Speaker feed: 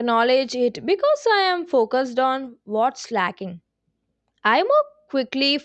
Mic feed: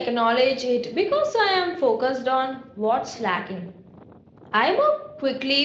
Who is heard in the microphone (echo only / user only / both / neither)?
echo only